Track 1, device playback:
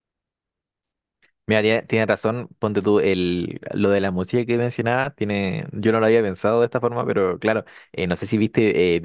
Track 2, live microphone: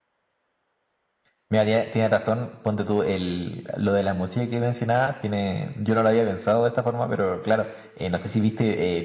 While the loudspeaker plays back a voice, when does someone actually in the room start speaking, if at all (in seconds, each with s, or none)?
none